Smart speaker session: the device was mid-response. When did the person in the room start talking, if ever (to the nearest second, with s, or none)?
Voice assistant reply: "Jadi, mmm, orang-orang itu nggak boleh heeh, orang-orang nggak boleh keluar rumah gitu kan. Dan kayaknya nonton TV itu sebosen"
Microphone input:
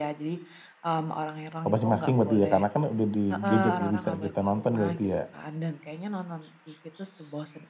2 s